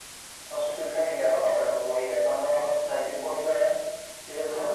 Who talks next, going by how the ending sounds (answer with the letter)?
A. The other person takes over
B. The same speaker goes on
B